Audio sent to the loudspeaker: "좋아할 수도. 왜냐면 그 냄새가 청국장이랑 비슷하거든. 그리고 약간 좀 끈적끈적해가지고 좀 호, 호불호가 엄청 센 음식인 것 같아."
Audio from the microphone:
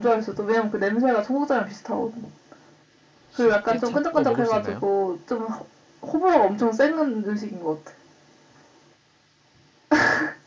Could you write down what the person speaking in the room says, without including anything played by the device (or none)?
쉽게 찾고 먹을 수 있나요?